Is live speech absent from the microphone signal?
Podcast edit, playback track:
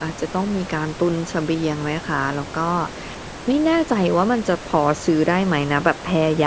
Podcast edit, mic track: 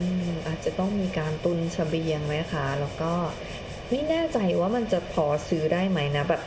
Yes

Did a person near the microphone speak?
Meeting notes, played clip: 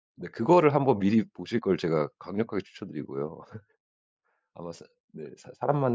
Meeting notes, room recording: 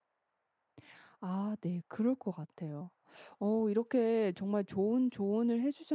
Yes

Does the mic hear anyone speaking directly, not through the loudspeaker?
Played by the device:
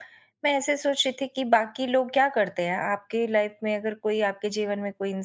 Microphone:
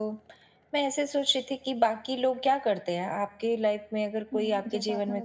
Yes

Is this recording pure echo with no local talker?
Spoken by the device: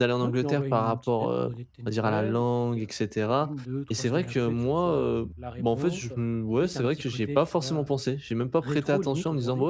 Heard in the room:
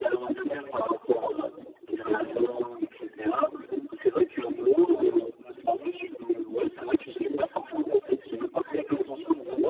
Yes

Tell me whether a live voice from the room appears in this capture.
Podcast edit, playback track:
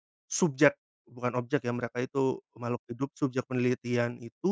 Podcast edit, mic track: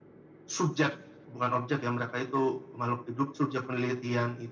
No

